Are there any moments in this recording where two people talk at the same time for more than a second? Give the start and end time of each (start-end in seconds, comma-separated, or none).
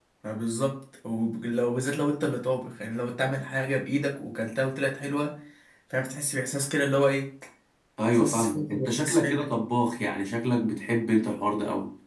8.1-9.4